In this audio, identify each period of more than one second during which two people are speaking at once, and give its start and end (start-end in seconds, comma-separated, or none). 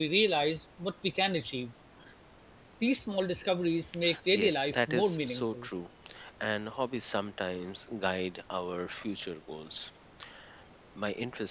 4.3-5.7